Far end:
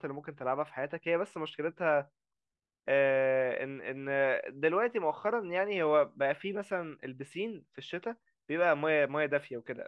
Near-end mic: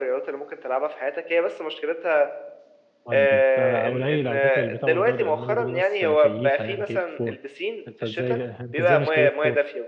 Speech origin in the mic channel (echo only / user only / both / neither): both